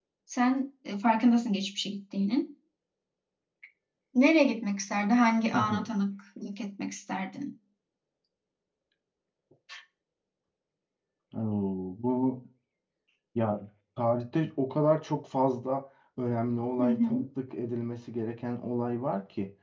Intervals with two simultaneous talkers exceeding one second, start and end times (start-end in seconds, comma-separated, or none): none